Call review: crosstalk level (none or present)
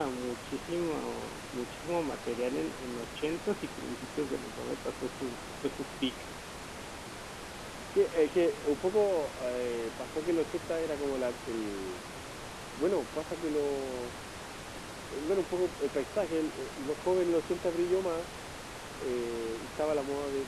none